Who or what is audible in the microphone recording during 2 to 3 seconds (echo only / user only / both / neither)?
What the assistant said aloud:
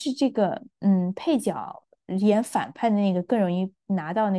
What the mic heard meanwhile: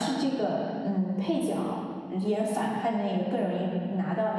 echo only